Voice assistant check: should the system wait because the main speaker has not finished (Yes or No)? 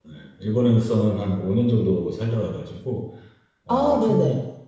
Yes